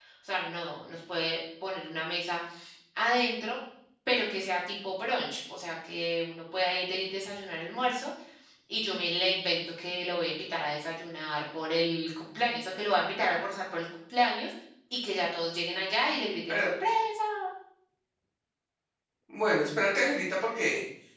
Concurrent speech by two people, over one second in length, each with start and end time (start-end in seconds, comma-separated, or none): none